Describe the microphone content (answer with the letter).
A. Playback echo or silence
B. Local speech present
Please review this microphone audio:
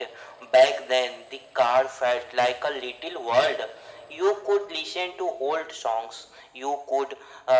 A